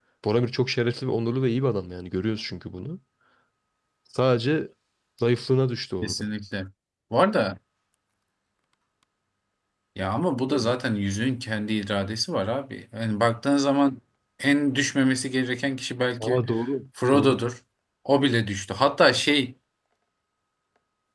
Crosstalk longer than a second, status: none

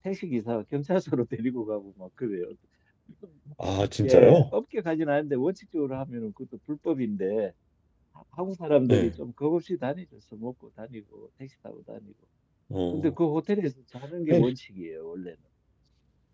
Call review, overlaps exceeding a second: none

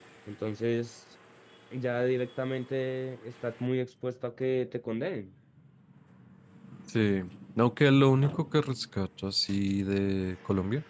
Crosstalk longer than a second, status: none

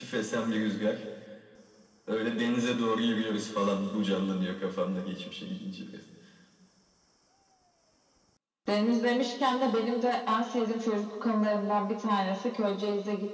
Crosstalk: none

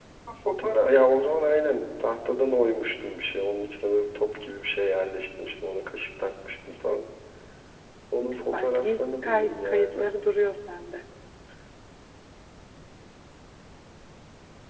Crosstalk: present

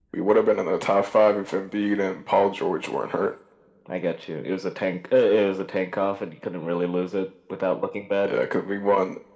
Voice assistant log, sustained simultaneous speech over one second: none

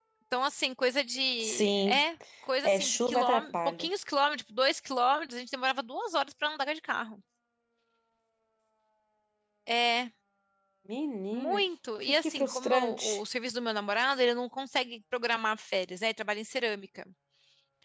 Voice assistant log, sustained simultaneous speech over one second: present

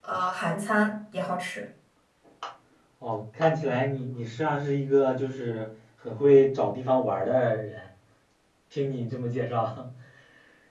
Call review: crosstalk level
none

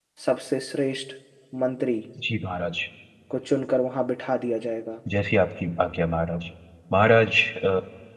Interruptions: none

